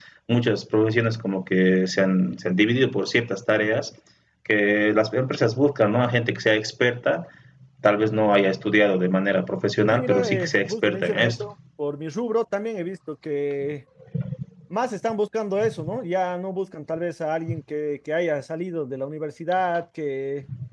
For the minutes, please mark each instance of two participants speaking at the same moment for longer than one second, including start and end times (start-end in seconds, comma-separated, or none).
9.9-11.5